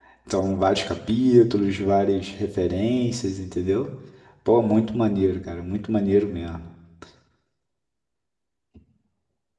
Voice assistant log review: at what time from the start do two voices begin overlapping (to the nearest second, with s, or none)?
none